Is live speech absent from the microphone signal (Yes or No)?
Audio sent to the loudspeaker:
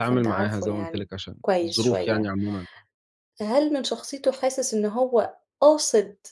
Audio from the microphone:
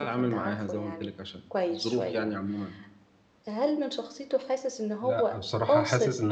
No